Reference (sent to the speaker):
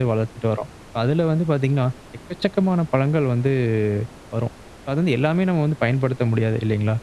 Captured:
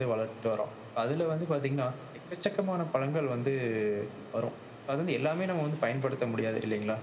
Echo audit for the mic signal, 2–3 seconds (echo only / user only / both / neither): echo only